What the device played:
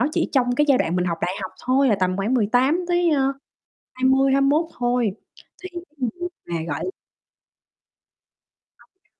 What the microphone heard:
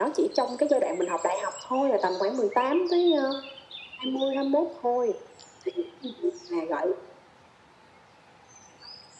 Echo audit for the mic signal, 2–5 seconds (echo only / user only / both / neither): echo only